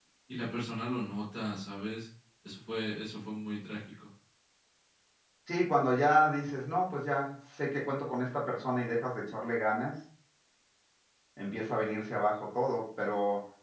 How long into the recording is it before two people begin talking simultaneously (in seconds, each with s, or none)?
none